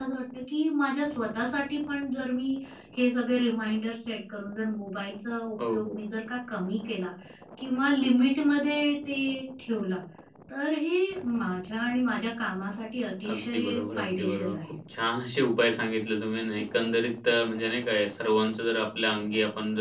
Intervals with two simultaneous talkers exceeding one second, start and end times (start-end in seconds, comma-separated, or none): 13.3-14.8